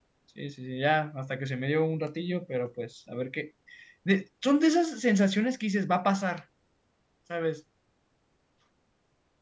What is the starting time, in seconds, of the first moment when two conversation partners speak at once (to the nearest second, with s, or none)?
none